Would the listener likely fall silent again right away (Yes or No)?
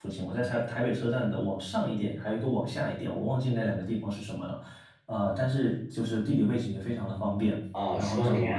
No